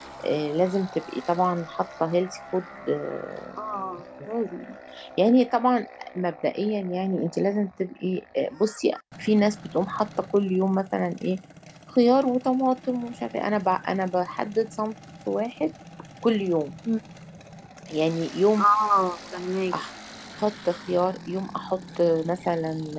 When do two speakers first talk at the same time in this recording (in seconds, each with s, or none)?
none